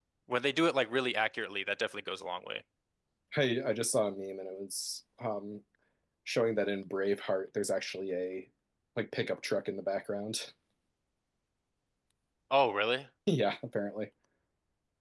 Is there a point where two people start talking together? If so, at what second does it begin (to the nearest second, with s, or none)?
none